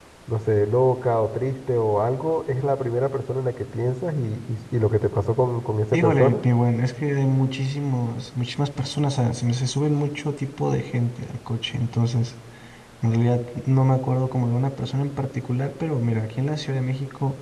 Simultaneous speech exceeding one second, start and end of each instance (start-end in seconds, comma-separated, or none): none